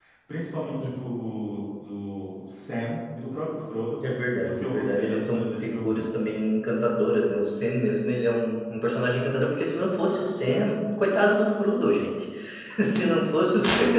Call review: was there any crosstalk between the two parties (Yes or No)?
Yes